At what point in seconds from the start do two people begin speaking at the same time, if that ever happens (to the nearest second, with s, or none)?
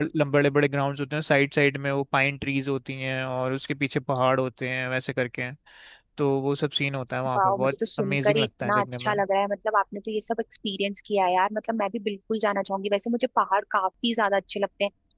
7 s